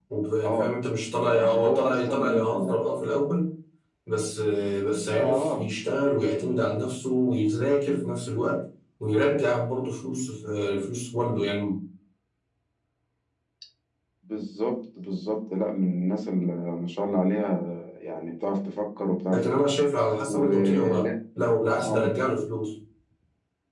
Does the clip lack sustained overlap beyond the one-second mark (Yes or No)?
No